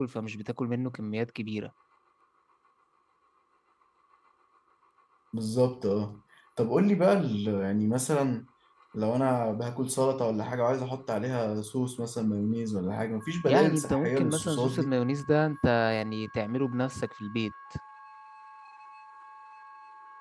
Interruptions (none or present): present